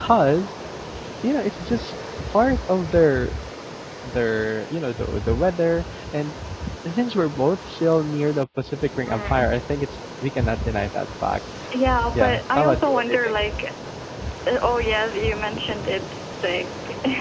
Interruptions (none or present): present